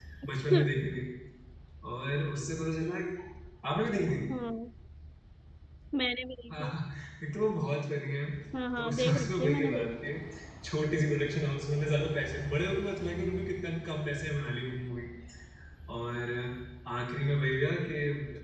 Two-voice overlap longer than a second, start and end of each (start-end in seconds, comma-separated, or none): 8.8-10.1